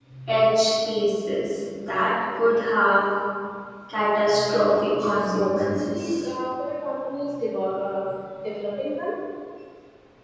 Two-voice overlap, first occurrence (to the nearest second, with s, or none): 4 s